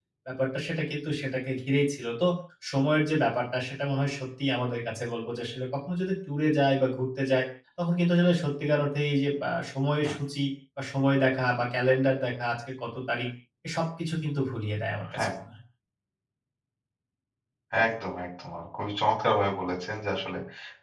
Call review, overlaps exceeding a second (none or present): none